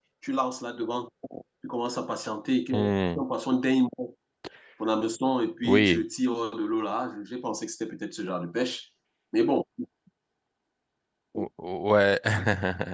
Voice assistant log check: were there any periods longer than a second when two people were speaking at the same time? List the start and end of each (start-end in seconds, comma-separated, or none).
none